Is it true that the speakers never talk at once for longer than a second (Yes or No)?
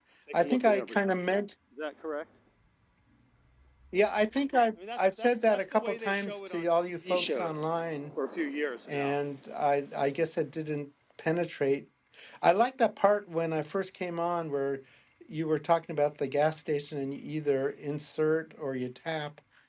No